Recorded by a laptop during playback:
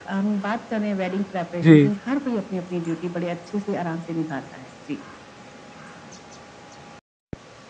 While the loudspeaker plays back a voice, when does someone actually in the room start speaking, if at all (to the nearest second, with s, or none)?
2 s